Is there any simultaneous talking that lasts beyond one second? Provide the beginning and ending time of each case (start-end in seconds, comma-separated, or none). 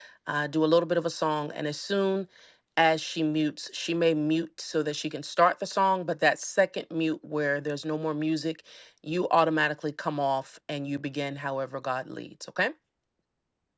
none